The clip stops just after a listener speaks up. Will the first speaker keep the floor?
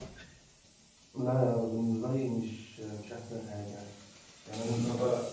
Yes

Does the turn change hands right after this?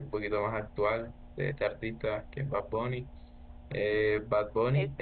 No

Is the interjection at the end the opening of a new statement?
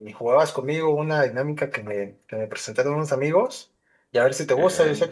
No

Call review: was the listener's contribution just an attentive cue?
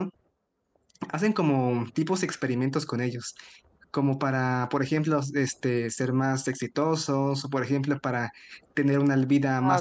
Yes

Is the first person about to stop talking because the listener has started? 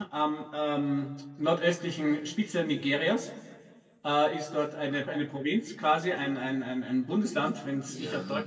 Yes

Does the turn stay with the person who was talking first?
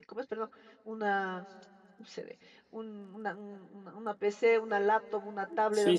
Yes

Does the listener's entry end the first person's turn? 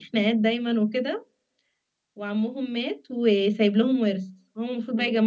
No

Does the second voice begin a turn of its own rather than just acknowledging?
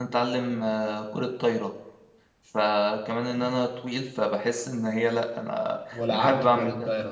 Yes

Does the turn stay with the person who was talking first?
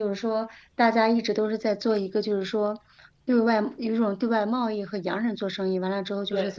Yes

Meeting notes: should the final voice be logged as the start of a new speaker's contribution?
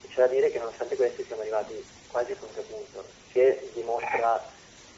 No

